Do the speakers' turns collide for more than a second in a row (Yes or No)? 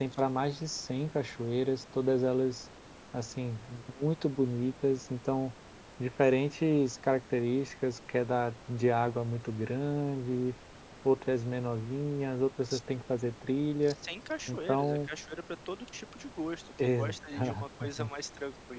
Yes